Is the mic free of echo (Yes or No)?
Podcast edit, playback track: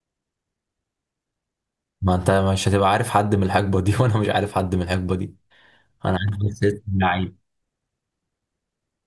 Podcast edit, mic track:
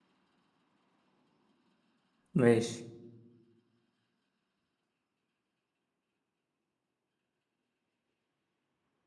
Yes